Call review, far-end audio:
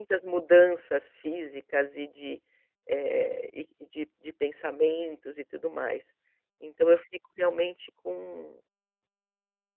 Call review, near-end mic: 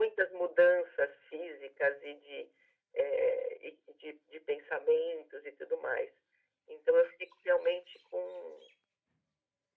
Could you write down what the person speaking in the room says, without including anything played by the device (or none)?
none